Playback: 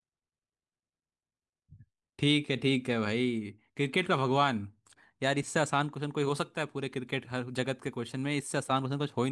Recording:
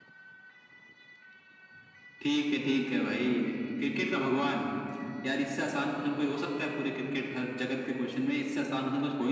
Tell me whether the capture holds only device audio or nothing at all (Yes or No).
Yes